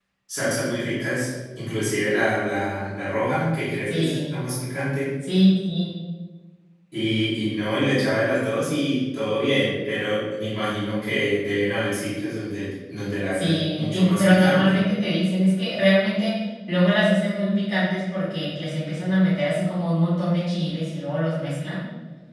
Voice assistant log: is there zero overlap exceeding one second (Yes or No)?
No